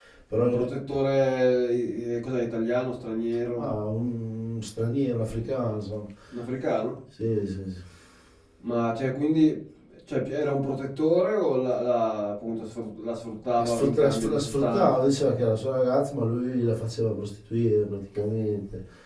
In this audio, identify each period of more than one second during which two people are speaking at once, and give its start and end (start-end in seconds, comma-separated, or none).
13.6-15.0